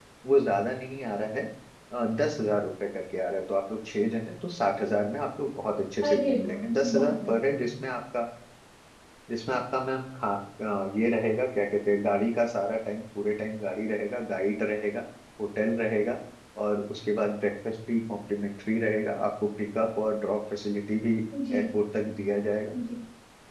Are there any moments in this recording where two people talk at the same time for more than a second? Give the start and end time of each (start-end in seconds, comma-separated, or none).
6.0-7.4